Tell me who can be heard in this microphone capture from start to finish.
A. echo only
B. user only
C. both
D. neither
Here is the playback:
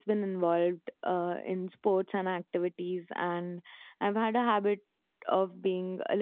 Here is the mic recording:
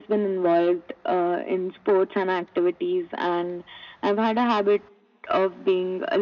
A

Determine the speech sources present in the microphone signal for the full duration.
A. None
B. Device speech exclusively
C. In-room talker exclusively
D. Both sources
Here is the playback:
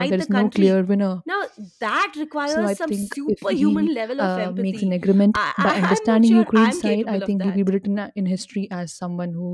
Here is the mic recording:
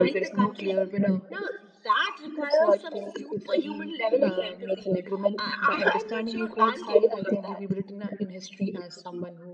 B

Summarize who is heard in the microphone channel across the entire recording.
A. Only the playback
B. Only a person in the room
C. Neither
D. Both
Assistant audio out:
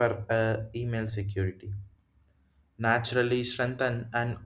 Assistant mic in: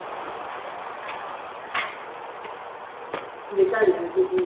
B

